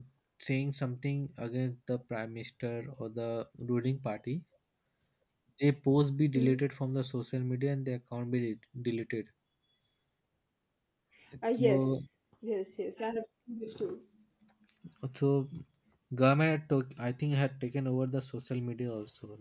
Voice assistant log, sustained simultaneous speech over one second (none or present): none